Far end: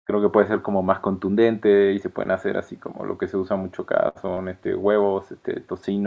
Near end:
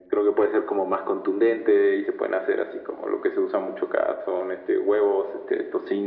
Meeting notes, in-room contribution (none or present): none